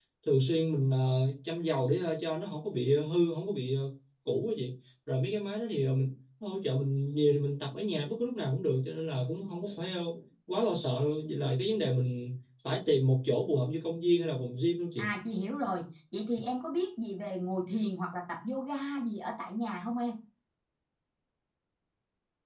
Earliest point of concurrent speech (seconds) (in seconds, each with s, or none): none